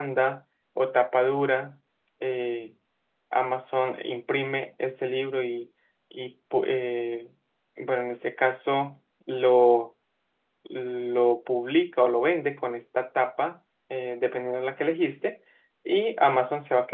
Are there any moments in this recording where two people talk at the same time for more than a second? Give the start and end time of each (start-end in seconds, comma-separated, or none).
none